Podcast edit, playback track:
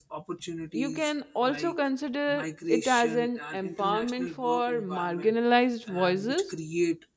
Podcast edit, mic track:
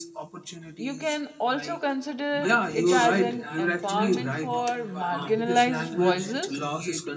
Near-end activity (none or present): present